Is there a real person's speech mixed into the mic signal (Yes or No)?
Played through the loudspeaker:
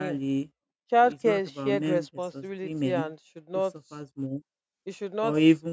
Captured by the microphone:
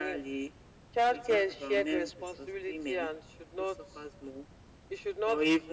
No